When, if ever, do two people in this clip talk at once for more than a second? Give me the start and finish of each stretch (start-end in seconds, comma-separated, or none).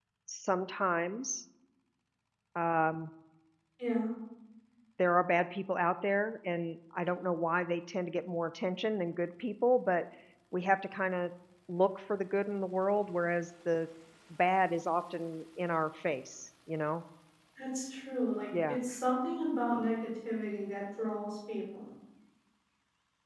none